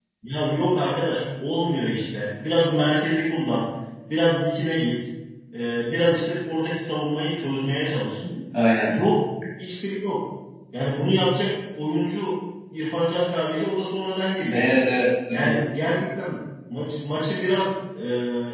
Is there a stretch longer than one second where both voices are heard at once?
No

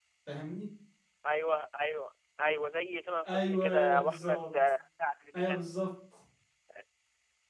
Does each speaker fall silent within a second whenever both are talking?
No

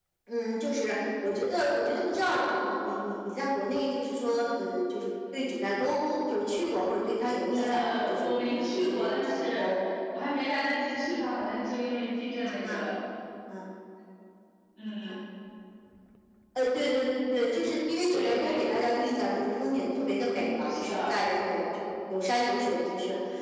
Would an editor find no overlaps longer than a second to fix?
No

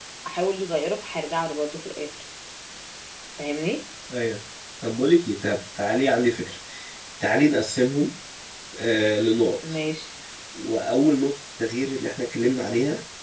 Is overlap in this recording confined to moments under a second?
Yes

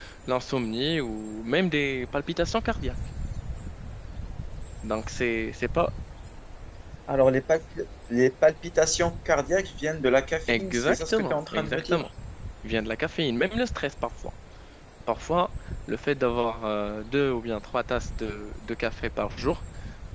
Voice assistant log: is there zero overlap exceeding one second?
No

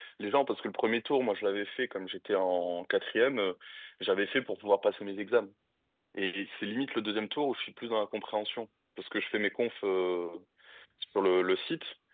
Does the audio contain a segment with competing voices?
No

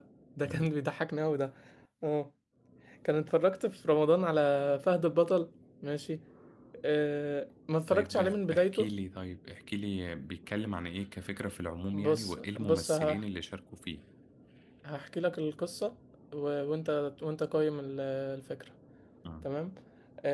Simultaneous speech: Yes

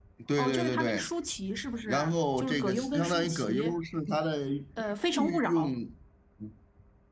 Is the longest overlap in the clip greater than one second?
Yes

